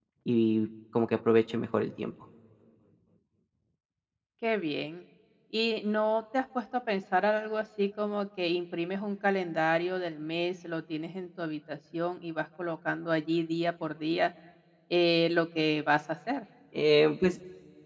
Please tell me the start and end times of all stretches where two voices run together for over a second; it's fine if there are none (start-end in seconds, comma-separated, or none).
none